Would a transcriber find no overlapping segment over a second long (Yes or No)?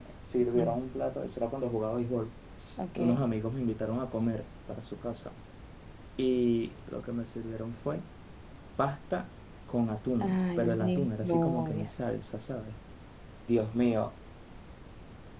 No